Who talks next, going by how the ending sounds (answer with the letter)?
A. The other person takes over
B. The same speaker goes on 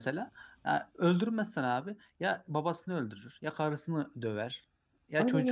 B